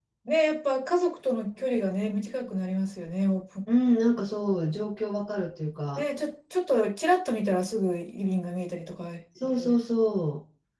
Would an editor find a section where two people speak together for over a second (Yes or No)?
No